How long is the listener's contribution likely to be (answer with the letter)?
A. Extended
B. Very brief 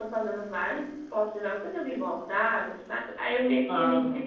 B